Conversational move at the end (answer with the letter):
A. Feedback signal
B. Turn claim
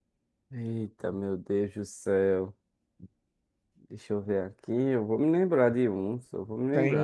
B